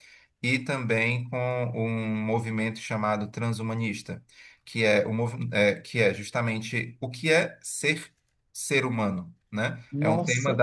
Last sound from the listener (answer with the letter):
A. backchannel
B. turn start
A